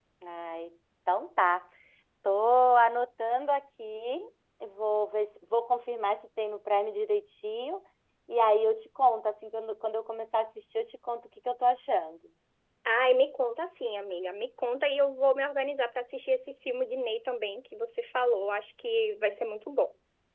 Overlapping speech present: No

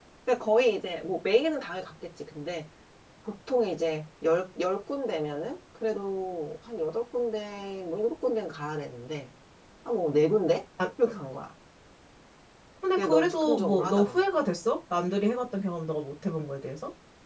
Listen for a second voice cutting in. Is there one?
Yes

